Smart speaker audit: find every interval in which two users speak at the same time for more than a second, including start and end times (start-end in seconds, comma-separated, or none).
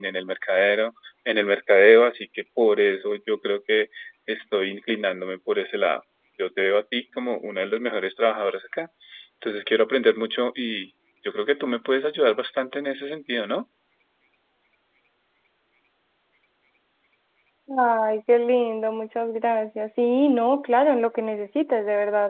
none